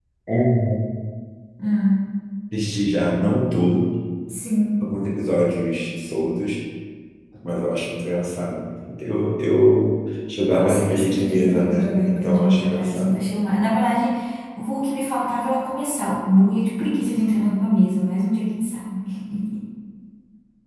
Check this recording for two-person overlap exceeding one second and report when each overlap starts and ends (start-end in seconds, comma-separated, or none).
10.6-13.2